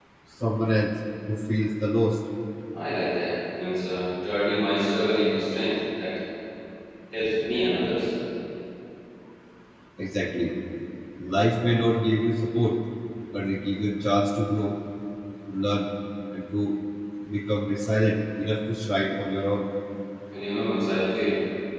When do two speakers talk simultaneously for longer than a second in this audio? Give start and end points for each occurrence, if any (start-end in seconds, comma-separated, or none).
none